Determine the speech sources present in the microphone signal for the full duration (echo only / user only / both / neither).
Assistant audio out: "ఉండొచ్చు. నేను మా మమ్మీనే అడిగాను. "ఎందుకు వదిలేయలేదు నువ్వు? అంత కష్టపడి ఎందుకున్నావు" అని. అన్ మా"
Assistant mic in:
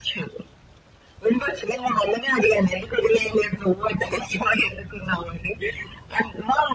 echo only